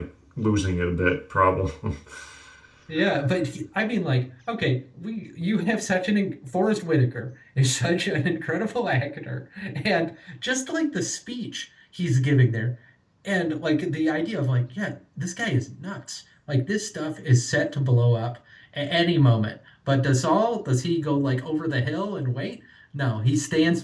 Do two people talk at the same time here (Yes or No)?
No